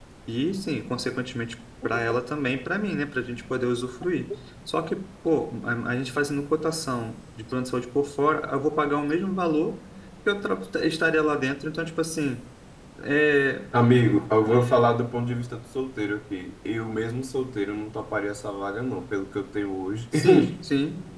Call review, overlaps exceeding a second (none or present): none